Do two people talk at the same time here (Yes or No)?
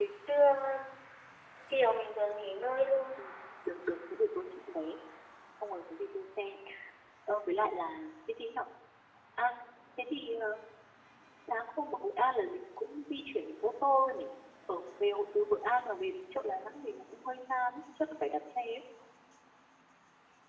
No